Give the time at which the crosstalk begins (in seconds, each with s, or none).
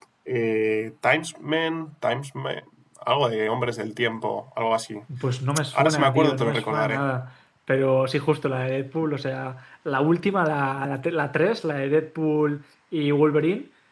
5.7 s